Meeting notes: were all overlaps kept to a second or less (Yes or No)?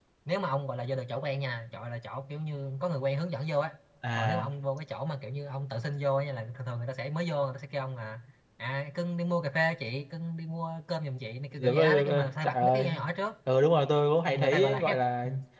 No